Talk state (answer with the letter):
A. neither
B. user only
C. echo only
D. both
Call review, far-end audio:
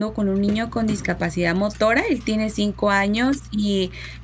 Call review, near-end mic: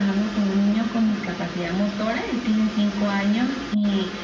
C